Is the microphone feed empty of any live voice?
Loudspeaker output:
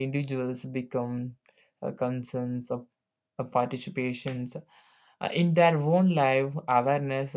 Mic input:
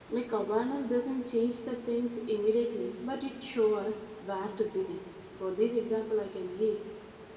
No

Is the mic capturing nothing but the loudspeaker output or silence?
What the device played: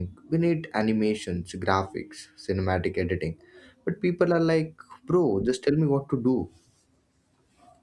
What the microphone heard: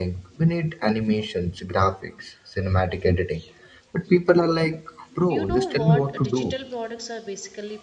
No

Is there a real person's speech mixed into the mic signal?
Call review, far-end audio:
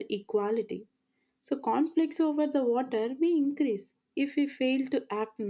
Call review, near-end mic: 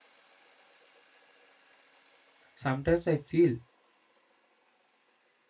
Yes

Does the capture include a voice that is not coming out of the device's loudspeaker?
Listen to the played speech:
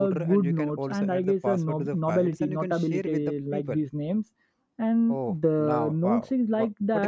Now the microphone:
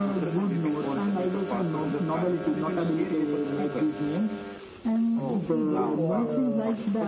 Yes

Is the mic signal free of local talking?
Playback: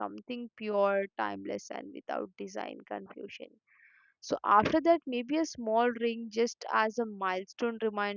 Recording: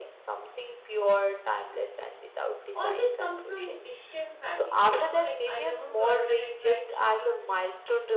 No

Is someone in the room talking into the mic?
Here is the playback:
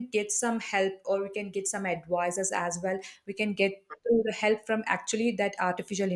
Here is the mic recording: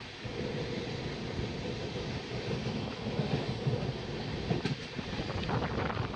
No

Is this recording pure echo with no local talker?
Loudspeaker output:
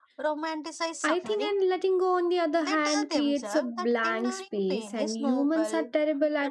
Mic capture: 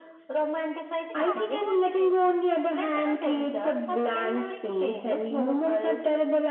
No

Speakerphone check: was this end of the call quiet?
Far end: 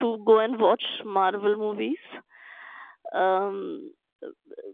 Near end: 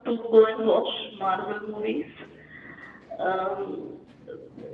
Yes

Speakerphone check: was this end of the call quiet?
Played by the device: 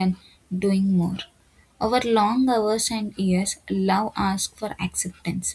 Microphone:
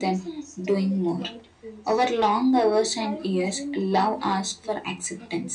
No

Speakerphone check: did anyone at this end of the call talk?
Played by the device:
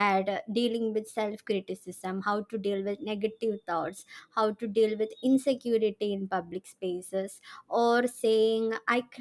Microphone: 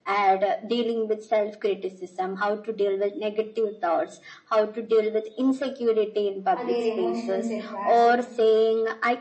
Yes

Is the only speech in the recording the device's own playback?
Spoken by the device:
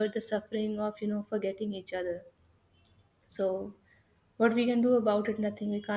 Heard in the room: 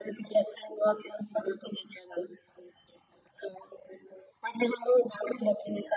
Yes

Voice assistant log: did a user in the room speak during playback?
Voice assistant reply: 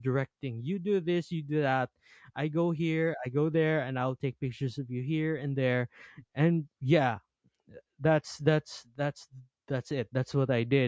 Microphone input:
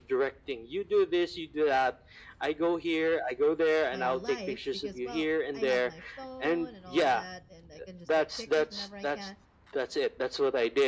Yes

